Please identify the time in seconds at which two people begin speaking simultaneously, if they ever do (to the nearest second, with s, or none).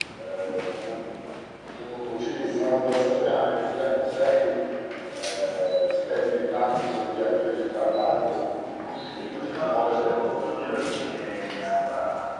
9 s